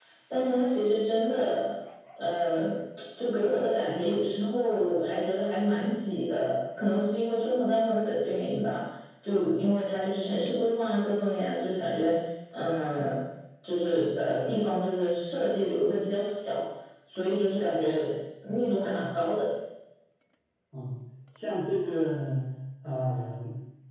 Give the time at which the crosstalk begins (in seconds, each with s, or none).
none